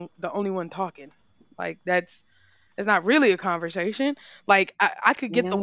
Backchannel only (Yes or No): Yes